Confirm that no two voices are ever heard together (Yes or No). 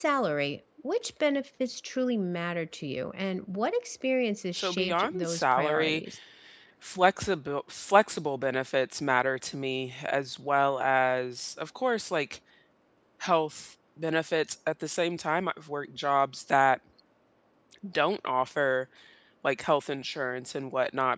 No